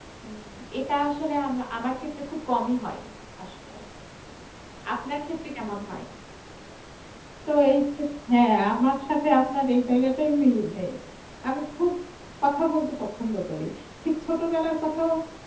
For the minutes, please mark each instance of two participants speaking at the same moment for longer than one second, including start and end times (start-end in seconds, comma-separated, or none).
none